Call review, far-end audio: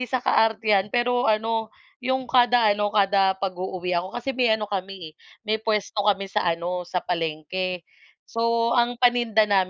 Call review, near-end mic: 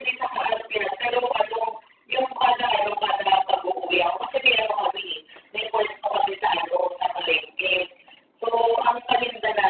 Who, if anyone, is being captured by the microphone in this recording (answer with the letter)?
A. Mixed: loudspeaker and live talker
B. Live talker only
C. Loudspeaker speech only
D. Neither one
C